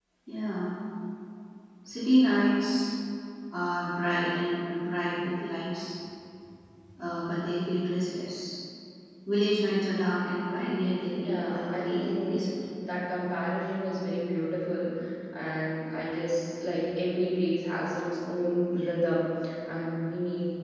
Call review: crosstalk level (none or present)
present